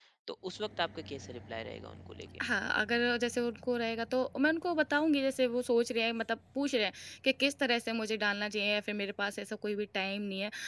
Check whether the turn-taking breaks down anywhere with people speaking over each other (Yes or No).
No